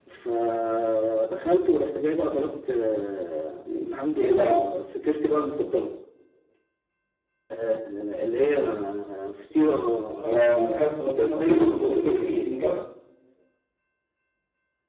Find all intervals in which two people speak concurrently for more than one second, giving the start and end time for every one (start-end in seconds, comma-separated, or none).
11.1-12.5